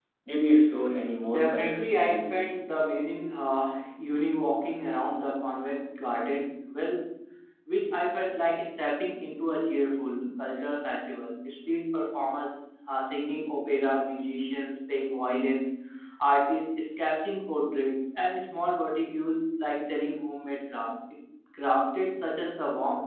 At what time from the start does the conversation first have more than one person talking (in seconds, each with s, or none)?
1.3 s